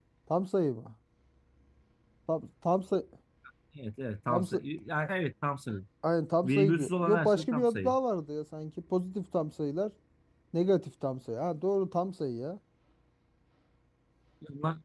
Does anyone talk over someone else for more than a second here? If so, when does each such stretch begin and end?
6.4-8.0

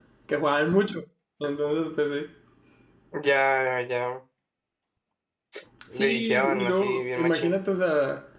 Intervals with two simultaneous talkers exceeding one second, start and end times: 5.9-7.5

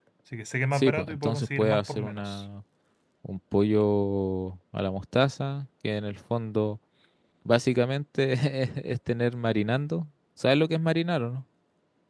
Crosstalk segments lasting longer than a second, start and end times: 0.7-2.4

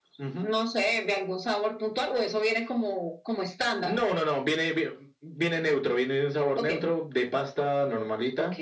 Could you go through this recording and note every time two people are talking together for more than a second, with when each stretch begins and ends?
none

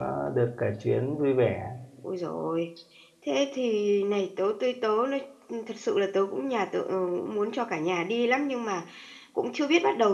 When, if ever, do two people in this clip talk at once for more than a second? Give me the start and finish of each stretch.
none

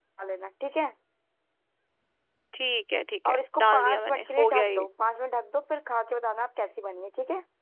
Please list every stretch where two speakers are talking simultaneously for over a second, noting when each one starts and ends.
3.2-4.9

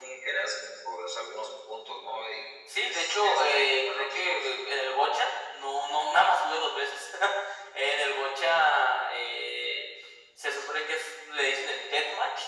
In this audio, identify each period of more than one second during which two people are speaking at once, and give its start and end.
2.8-4.5

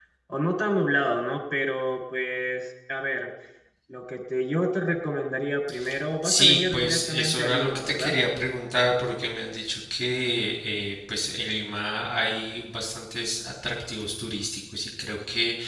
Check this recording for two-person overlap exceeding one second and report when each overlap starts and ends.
6.2-8.1

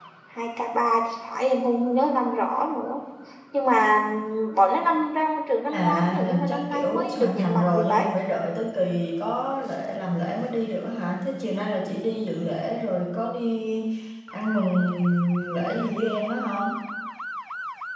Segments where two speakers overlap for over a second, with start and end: 5.7-8.1

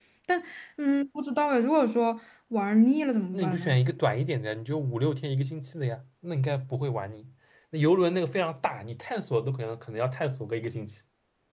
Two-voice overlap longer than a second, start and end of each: none

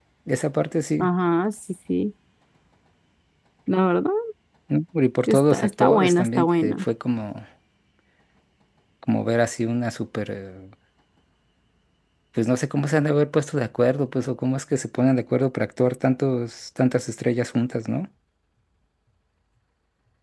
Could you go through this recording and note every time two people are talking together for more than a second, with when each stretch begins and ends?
5.3-6.8

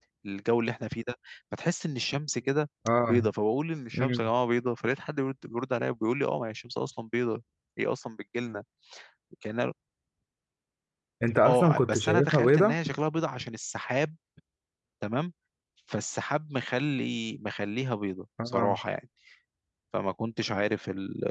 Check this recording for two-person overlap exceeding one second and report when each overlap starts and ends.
11.5-12.8

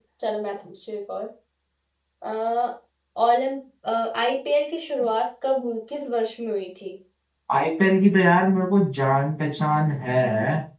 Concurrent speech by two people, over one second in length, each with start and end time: none

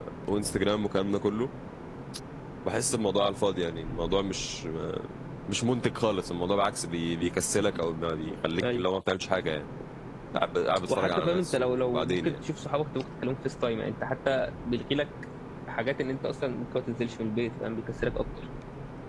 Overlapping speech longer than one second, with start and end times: 10.9-12.4

